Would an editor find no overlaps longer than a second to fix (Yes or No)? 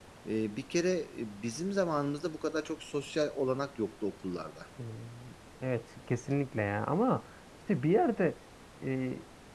Yes